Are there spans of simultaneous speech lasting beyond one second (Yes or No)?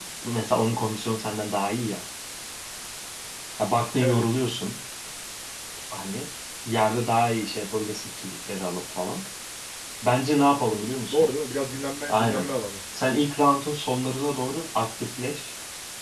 No